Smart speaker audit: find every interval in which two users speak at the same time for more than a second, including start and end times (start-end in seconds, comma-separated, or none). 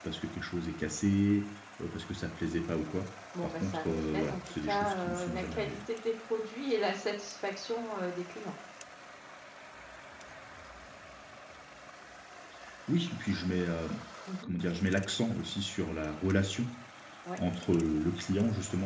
3.4-5.8